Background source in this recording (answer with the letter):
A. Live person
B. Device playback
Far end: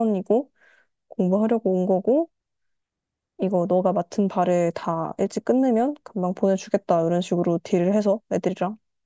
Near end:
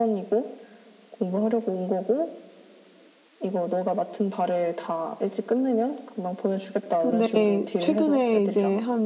B